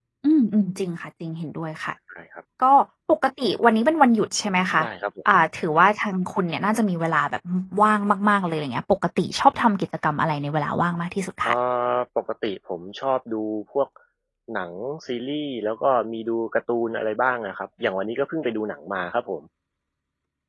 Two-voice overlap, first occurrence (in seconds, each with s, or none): none